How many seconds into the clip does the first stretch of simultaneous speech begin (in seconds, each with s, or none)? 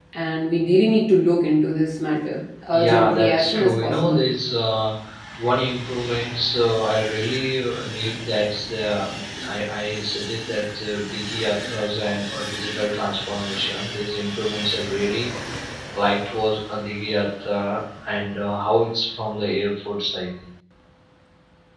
2.7 s